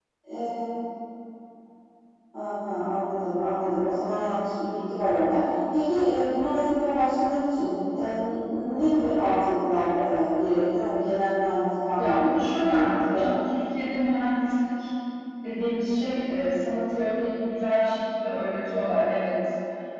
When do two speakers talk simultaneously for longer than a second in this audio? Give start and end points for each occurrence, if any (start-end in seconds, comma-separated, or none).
12.0-13.3